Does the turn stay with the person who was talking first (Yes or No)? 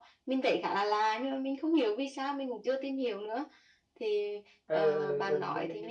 No